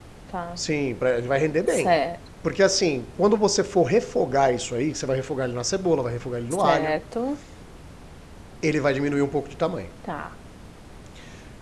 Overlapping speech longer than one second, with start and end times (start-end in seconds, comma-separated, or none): none